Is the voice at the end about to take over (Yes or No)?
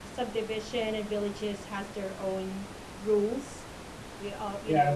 Yes